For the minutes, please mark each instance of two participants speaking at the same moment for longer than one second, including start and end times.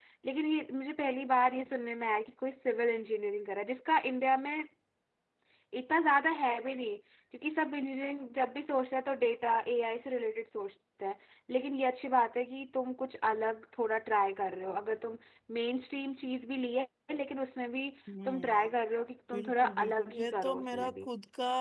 19.3-21.1

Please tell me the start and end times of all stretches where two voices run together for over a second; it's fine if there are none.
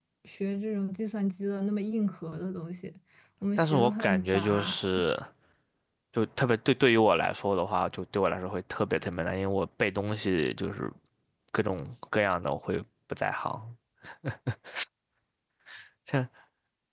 3.6-4.8

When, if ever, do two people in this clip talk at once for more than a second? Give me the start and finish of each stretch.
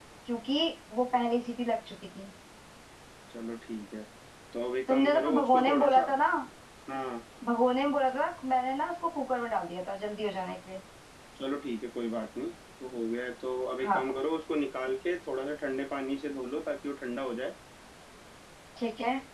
4.9-6.1

